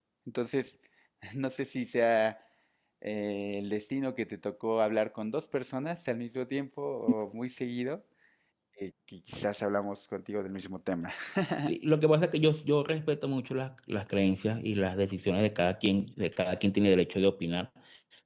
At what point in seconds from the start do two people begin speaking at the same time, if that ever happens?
none

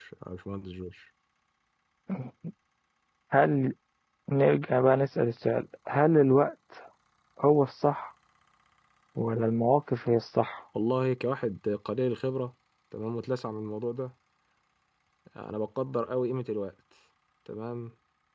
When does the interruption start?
none

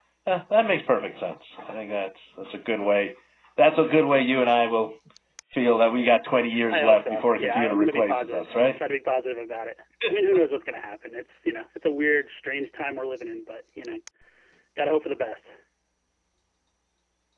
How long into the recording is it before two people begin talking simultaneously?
6.7 s

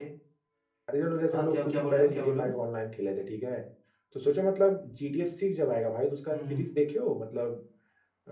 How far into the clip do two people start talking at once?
1.3 s

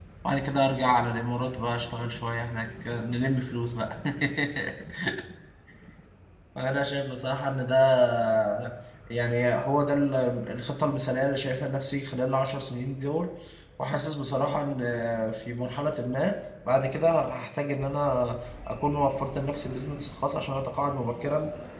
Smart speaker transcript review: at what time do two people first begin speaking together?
none

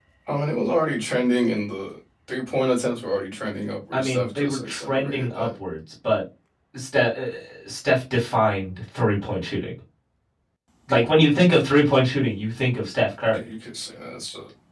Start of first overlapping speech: 3.9 s

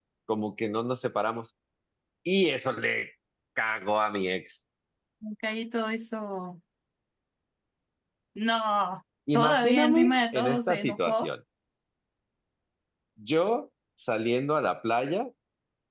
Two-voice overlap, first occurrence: 9.3 s

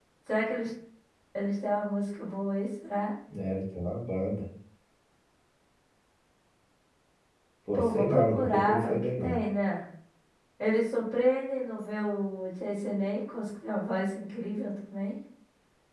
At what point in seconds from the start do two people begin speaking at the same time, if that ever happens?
7.7 s

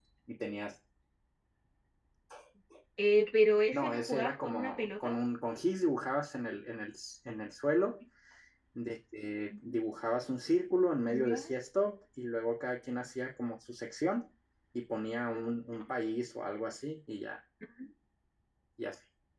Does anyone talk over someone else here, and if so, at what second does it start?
3.7 s

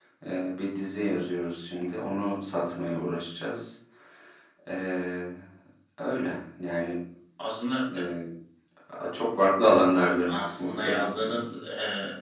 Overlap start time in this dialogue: 10.3 s

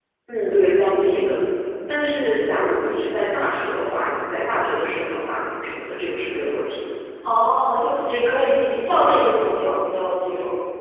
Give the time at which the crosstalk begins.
none

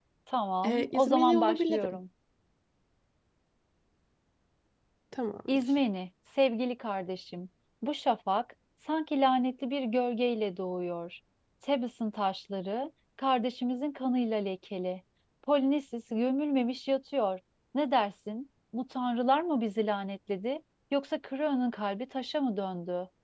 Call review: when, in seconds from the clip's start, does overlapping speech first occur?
0.6 s

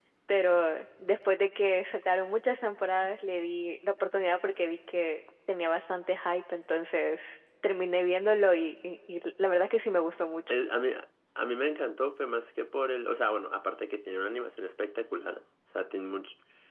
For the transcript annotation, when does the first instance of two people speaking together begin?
none

